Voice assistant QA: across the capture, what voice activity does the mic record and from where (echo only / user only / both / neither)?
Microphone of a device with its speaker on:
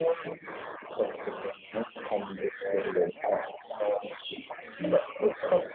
echo only